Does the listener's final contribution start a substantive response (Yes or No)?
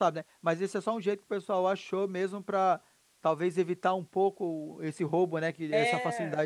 Yes